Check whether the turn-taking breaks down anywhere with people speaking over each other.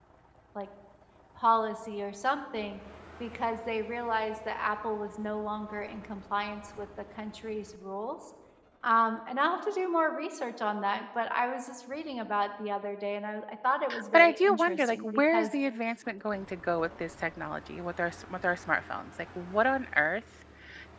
Yes, from 13.9 s

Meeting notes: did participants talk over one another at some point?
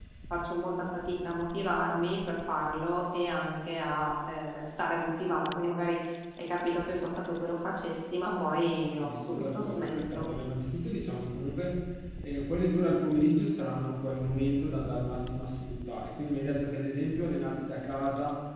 Yes, from 9.0 s

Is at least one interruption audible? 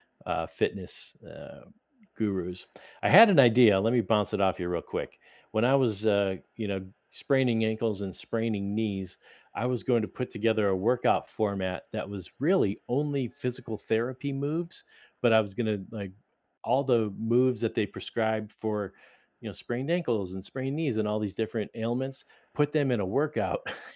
No

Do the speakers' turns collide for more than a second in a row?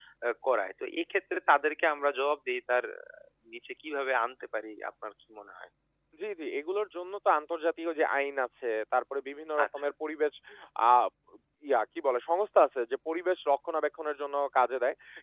No

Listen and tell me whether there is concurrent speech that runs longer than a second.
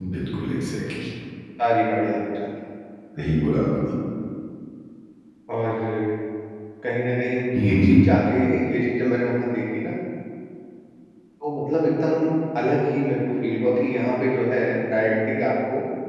No

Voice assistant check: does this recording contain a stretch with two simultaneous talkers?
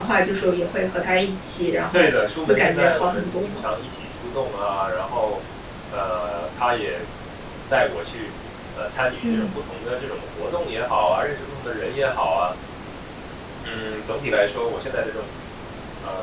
Yes, from 1.9 s

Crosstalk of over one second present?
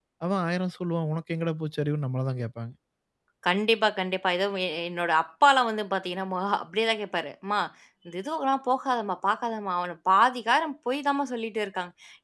No

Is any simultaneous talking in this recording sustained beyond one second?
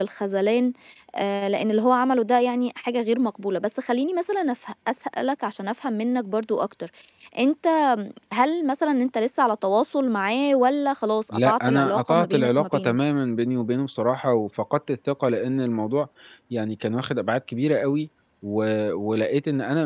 Yes, from 11.3 s

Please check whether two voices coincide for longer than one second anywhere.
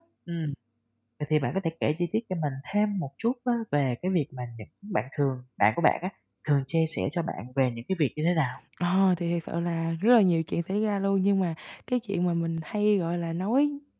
No

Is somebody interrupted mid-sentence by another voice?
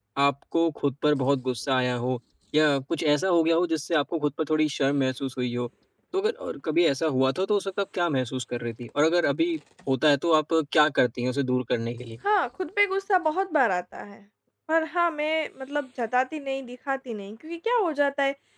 No

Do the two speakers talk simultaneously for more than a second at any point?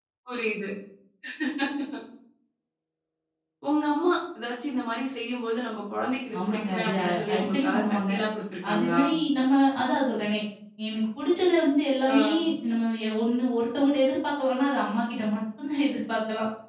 Yes, from 6.5 s

